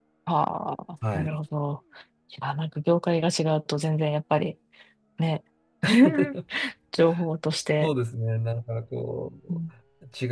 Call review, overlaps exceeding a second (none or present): none